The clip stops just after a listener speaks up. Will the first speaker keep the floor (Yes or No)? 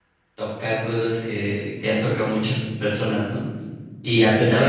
Yes